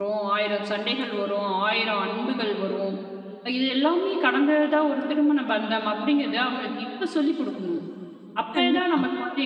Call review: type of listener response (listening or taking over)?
listening